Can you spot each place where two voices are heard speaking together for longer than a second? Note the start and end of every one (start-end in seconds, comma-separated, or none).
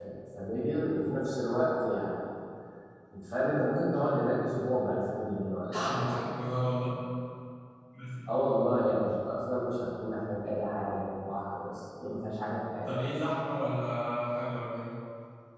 none